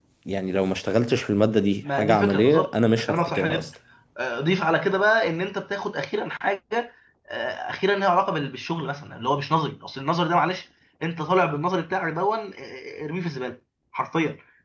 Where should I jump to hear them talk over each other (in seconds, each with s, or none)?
1.8 s